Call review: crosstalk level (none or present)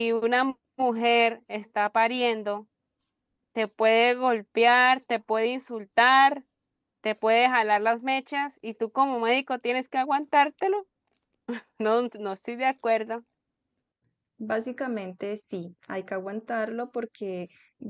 none